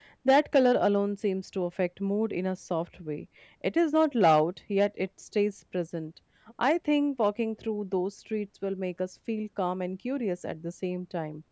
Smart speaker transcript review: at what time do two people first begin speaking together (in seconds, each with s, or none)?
none